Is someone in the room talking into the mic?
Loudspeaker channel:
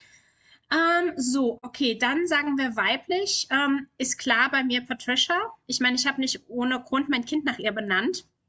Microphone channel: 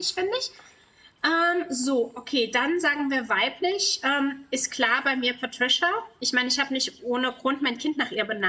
No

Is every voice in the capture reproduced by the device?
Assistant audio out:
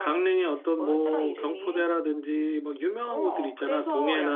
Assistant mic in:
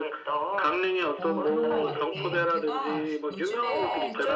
No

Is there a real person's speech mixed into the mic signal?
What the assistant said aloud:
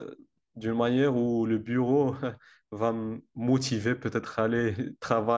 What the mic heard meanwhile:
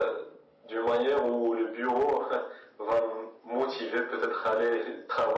No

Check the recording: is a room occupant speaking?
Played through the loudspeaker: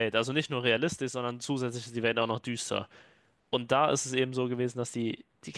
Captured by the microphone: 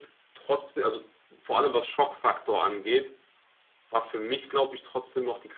Yes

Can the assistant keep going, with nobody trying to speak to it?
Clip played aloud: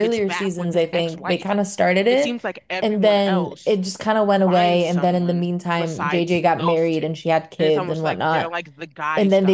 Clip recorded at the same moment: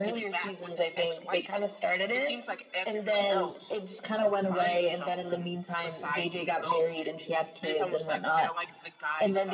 Yes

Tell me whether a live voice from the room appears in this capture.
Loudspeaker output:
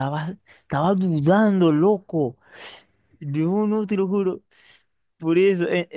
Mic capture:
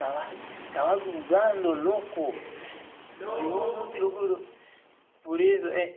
Yes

